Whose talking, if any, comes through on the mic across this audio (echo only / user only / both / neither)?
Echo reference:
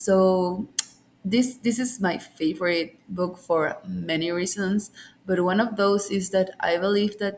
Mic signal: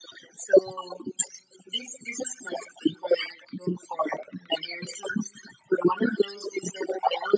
echo only